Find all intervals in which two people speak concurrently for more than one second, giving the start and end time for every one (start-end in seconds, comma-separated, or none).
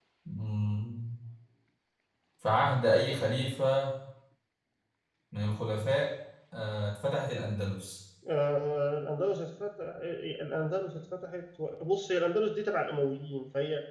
none